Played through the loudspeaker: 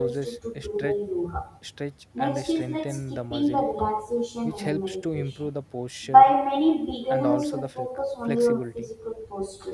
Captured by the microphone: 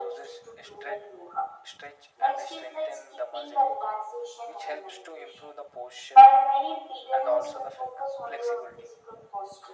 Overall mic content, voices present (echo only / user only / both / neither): echo only